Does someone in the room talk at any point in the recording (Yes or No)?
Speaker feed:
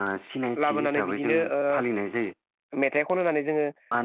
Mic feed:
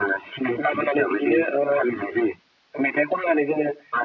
No